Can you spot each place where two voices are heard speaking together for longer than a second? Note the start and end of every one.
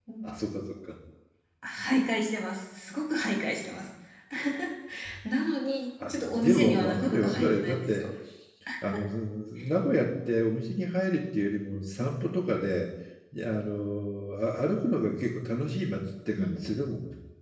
6.1-8.1

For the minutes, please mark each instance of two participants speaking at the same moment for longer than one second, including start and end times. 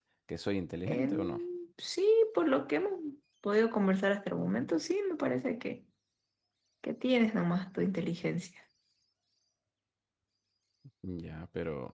none

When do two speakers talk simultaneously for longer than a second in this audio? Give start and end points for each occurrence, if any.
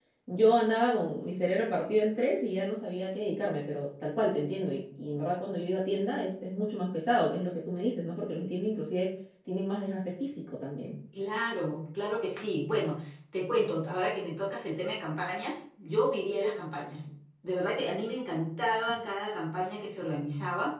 none

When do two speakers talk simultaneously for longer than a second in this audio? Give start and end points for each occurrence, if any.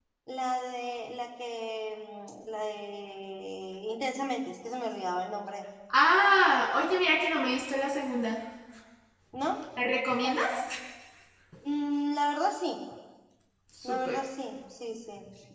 none

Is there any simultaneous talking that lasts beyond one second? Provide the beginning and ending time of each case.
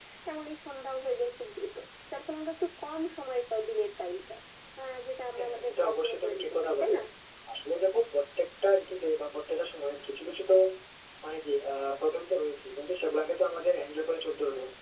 5.4-7.0

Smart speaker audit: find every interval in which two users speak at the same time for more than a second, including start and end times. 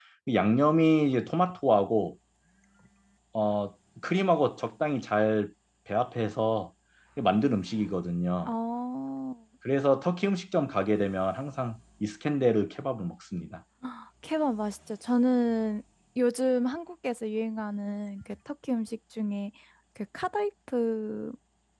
none

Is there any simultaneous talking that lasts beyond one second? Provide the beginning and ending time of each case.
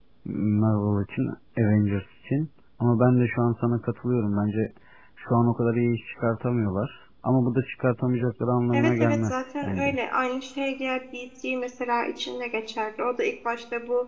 8.7-10.0

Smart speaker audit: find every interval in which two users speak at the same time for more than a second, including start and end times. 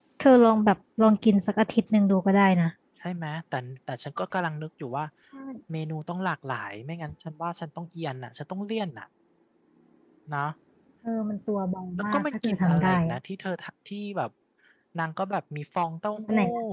12.0-13.2

